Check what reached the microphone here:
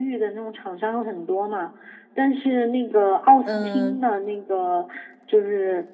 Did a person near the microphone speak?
Yes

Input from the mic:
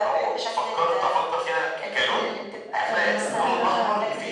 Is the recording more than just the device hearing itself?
Yes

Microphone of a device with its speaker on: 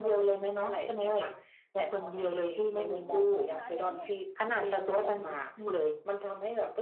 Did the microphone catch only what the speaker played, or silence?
No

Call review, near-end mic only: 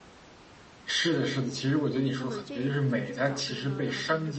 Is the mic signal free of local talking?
No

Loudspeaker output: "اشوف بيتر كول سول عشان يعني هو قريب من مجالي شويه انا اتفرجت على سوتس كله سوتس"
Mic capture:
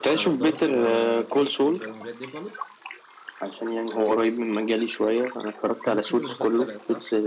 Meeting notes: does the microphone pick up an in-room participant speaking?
Yes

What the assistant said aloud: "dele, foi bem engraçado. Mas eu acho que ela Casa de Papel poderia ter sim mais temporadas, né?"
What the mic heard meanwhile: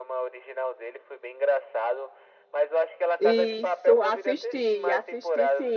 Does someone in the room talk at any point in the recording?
Yes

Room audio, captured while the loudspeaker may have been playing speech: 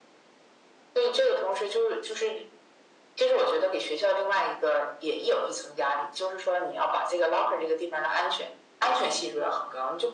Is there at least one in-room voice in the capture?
No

